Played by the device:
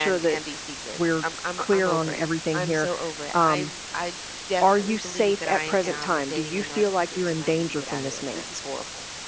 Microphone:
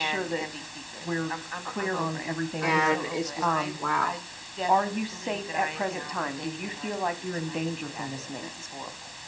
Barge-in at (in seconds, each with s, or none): 2.6 s